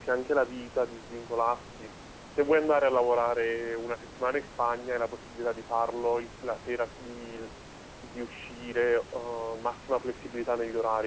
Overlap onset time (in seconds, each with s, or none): none